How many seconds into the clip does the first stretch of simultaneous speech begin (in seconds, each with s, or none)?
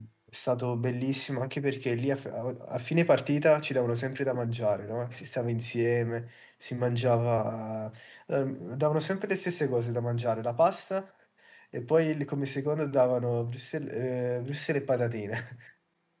none